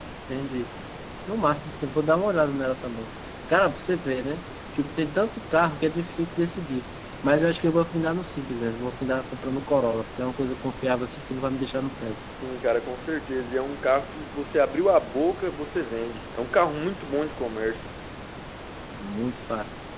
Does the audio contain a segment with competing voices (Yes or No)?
No